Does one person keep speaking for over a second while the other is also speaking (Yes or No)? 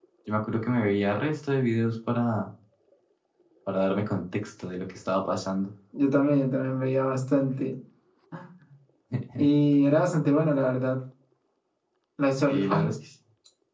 No